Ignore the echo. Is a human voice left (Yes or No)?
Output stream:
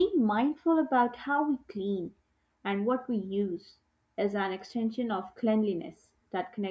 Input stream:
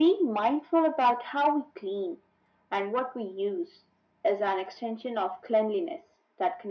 No